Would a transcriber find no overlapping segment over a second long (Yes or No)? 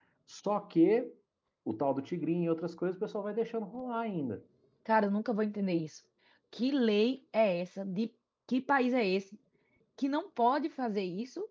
Yes